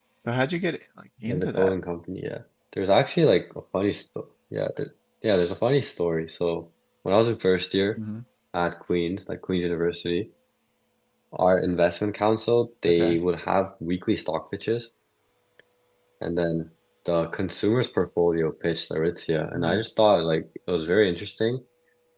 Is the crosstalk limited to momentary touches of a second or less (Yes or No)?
Yes